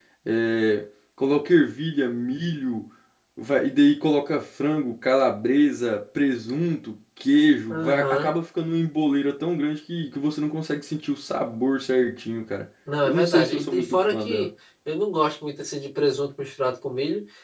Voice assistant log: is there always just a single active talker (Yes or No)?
No